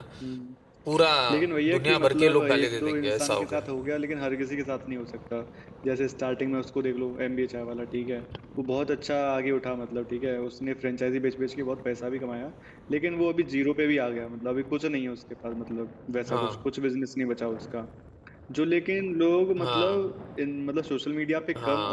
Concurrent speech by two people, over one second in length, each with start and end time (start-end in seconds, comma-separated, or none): 1.7-3.7